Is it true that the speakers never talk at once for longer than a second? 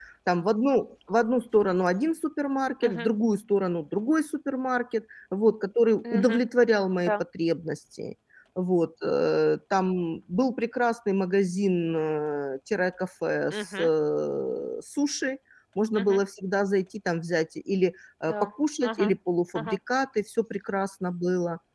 Yes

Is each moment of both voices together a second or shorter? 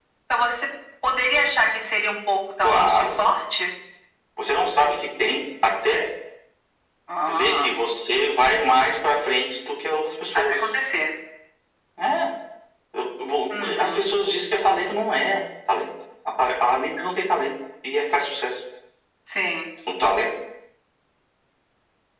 Yes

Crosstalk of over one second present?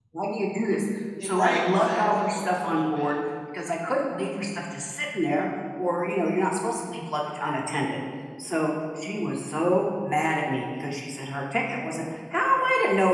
Yes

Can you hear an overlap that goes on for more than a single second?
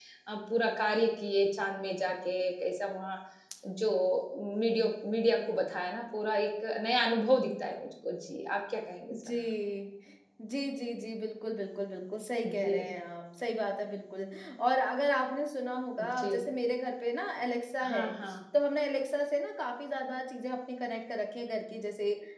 No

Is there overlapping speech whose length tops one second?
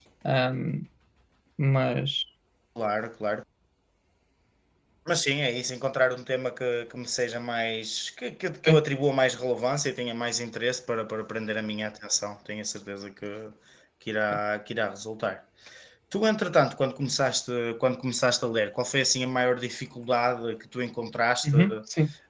No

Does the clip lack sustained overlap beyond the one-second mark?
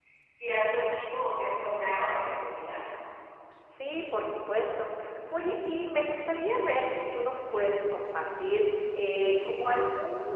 Yes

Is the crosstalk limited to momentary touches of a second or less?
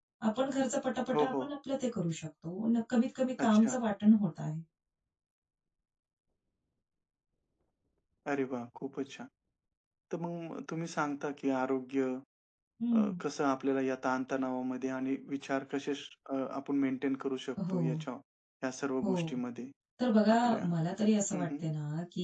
Yes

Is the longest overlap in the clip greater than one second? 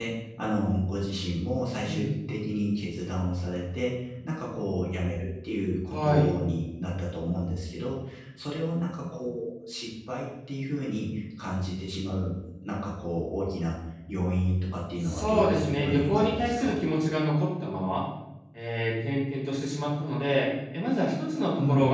Yes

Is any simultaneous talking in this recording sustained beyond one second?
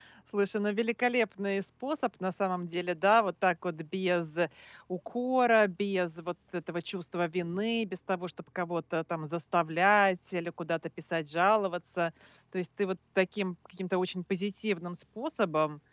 No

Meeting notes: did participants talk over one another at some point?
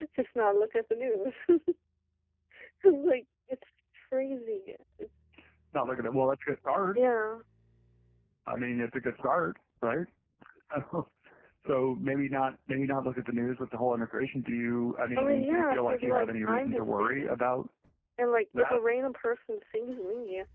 Yes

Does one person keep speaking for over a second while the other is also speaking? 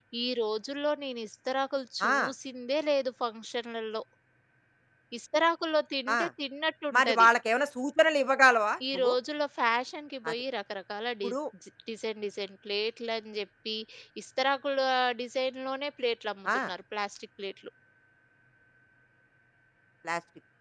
No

